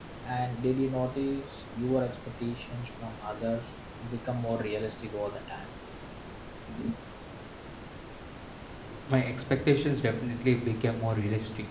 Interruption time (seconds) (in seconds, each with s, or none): none